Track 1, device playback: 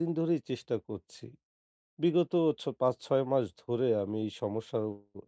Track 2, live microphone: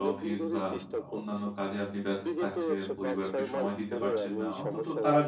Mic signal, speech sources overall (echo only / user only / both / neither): both